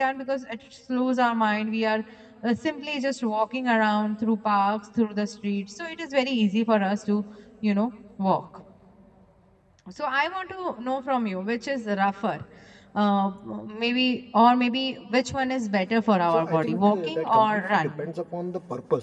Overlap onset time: 16 s

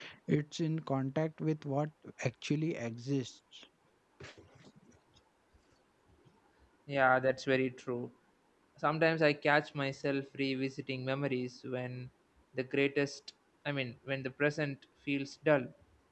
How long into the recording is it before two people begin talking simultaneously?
none

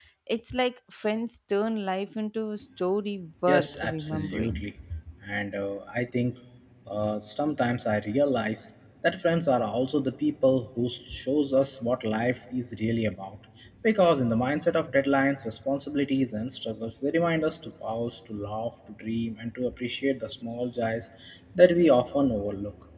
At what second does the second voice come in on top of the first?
3 s

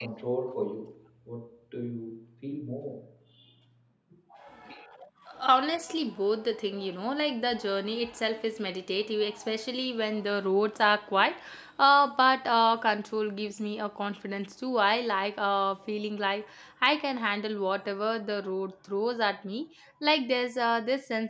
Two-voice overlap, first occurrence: none

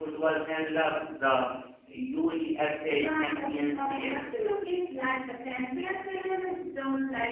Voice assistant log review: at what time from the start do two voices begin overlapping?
3 s

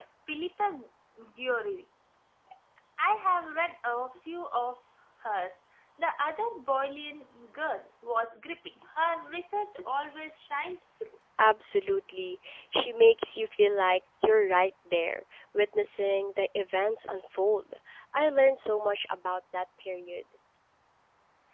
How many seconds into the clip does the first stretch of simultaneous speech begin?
none

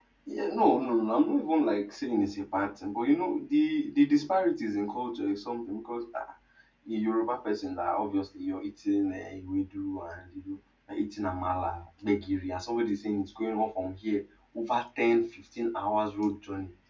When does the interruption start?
none

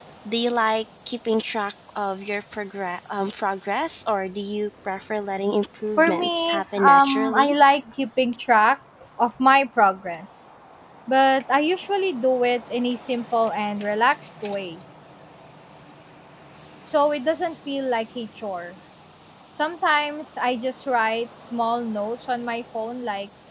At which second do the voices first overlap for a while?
6 s

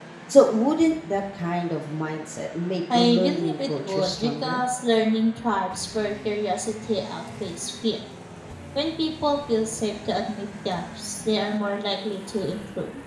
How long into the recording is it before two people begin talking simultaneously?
3 s

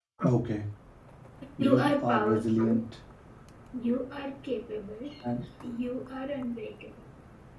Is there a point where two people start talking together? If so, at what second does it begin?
2 s

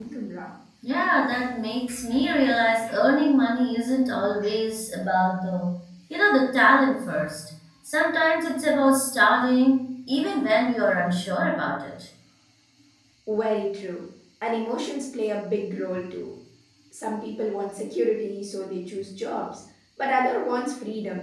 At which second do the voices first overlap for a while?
none

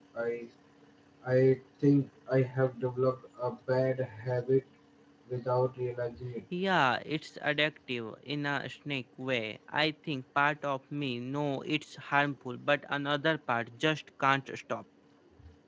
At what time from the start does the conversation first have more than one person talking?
none

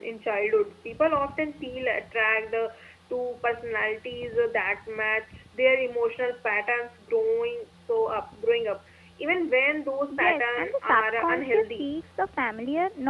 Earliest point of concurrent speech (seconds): 10 s

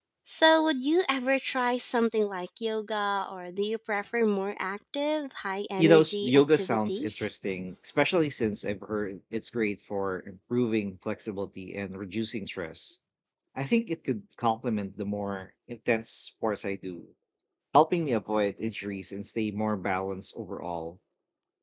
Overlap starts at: 6 s

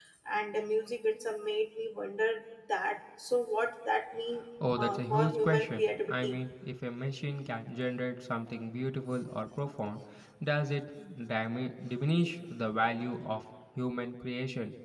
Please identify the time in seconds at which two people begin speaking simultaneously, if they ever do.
5 s

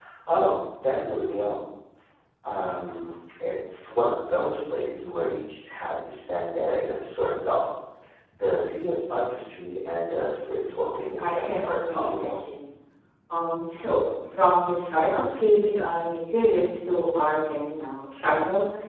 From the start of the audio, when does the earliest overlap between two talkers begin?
11 s

